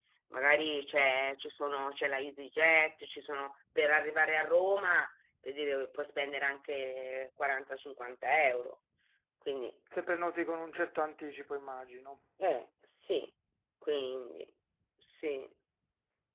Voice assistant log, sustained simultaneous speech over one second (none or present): none